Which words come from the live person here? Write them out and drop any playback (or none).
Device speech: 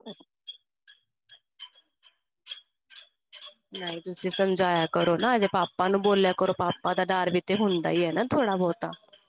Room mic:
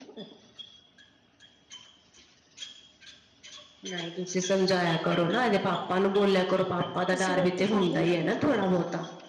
ਤੁਸੀਂ ਰੋਟੀ ਖਾ ਲਈ ਏ?